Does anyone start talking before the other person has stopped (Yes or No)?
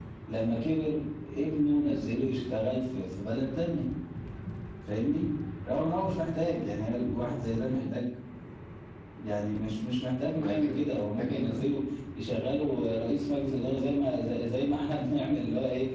Yes